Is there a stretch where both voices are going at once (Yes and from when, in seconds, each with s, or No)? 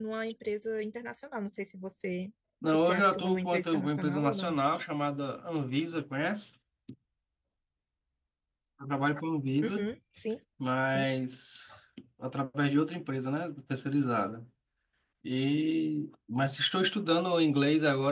Yes, from 2.7 s